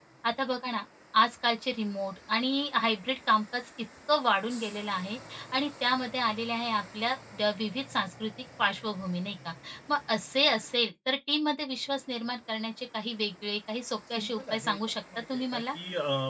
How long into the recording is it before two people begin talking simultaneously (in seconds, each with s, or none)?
14.2 s